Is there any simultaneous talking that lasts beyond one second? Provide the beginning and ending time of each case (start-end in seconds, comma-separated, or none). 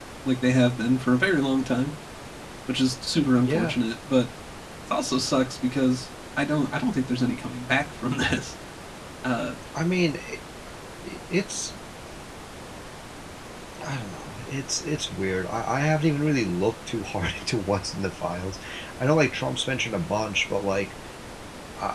none